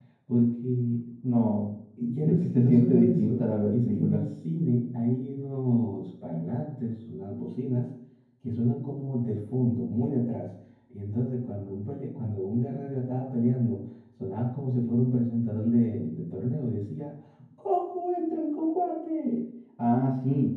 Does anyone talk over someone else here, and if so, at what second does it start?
2.2 s

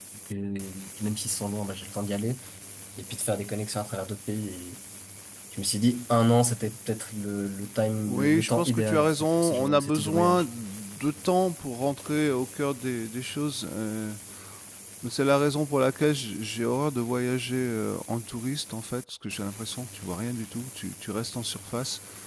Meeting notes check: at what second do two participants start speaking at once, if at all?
8.1 s

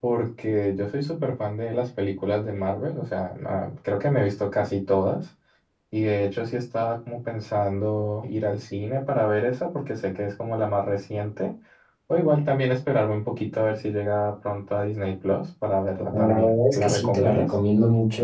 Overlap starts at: 16.1 s

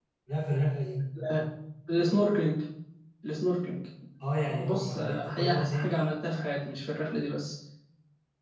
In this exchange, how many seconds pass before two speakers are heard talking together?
4.6 s

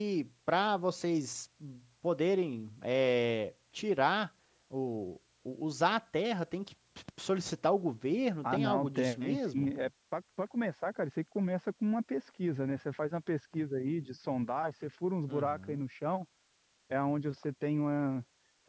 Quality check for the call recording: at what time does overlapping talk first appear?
8.4 s

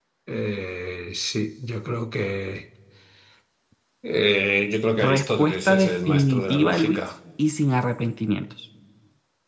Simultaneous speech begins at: 5.0 s

